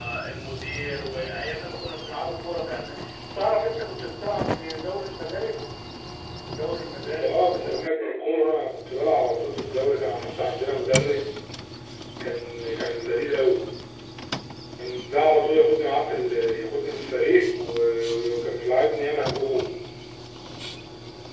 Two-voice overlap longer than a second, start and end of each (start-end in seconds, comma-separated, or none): 7.0-8.5